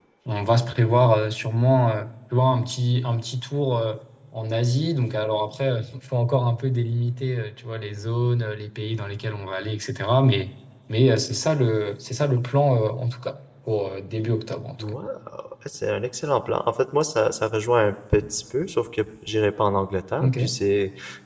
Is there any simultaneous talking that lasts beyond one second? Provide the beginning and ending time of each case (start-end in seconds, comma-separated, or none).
none